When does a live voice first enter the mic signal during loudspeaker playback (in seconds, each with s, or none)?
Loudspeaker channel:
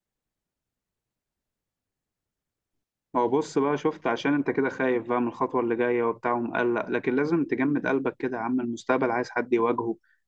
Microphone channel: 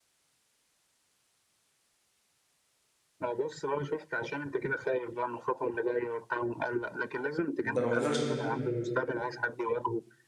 7.7 s